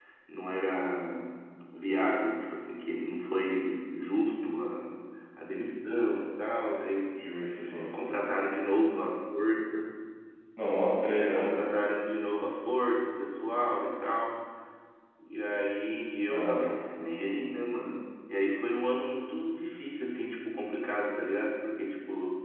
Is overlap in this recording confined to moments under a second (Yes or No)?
Yes